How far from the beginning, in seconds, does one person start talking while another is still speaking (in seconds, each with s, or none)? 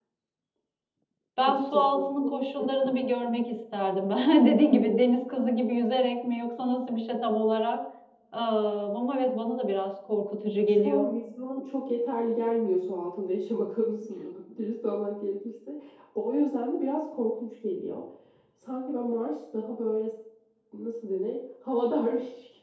1.5 s